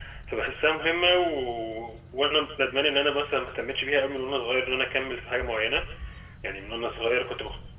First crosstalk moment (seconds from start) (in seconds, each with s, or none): none